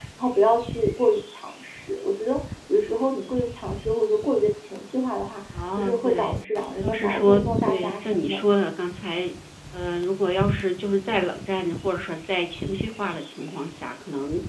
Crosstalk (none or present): present